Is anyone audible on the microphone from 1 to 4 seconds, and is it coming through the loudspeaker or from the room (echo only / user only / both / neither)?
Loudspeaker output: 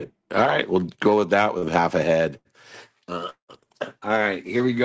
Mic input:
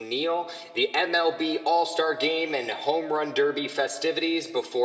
user only